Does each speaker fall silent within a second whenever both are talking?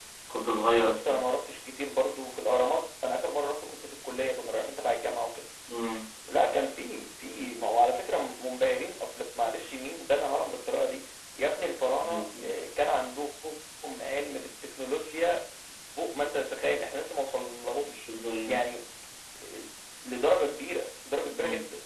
Yes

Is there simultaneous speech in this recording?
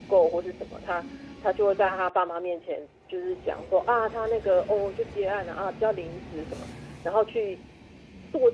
No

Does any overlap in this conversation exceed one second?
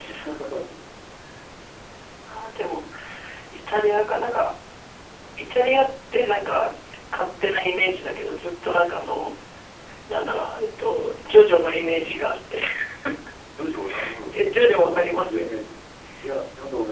Yes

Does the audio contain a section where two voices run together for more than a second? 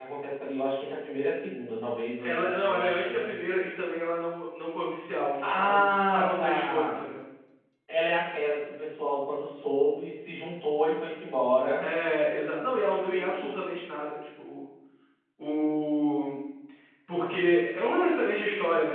Yes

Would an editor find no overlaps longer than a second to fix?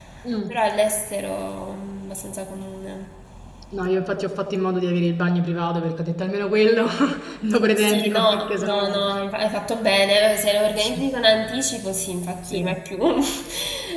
No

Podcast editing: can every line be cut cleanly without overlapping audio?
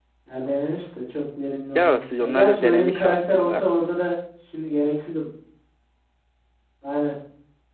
No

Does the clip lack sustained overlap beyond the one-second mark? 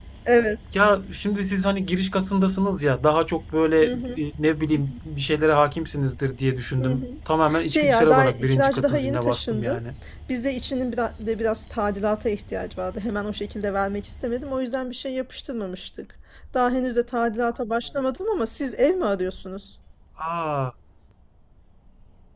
No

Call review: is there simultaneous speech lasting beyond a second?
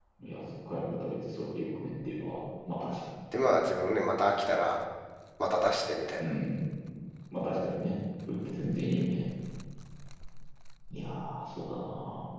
No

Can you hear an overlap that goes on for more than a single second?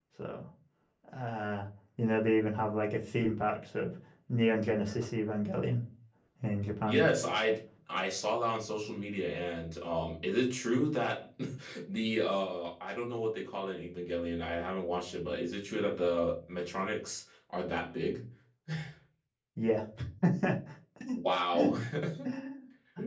No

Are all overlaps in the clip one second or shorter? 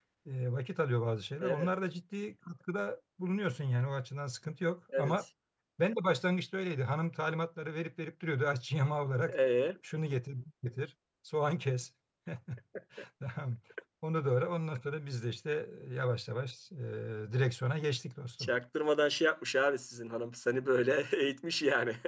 Yes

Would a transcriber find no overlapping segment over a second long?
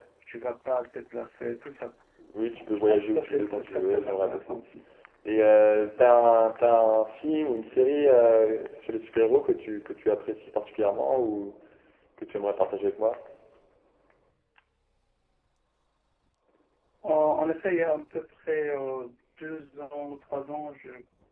No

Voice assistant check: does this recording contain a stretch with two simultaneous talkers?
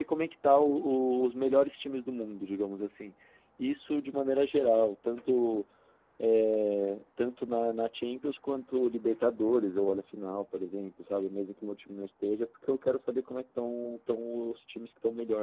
No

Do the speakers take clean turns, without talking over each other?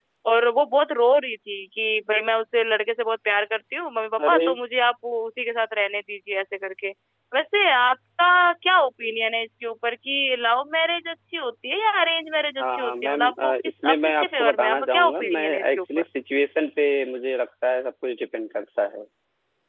No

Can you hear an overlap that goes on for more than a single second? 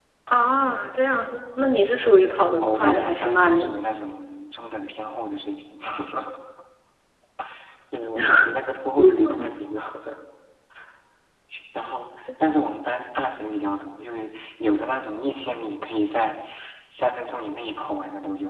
Yes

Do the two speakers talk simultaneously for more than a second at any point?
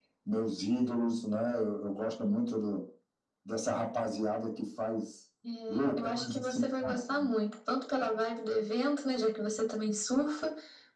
Yes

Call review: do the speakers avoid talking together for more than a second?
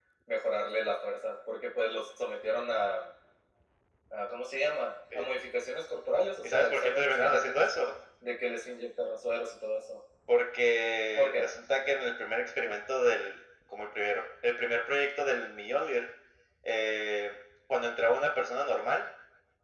No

